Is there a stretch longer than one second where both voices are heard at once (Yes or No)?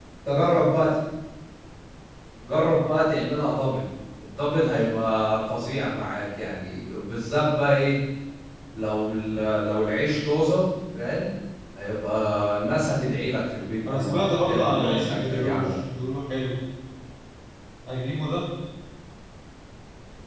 Yes